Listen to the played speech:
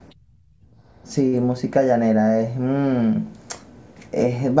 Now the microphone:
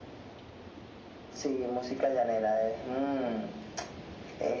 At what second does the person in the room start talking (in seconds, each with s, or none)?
none